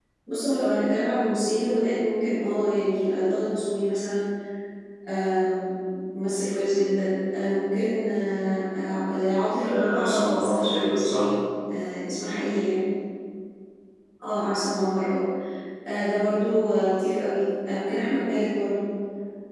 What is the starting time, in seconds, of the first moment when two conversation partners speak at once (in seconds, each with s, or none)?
9.6 s